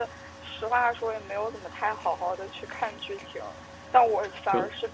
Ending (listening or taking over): listening